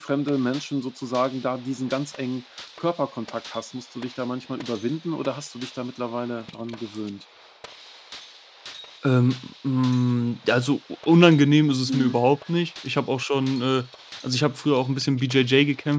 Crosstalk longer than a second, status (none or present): none